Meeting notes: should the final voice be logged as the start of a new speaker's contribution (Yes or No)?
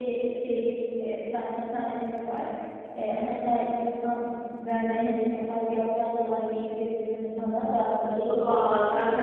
Yes